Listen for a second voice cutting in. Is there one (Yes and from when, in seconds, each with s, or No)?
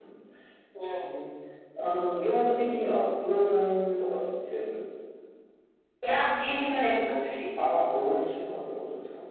No